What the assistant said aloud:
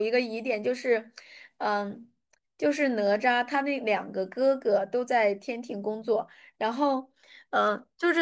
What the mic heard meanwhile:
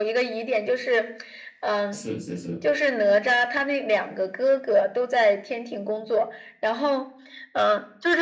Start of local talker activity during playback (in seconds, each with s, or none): 1.9 s